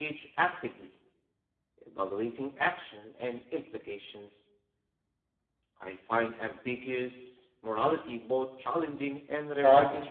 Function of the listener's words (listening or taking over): taking over